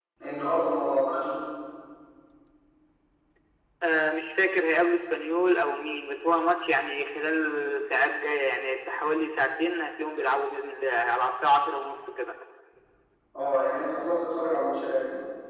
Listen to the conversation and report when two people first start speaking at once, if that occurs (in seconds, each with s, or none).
none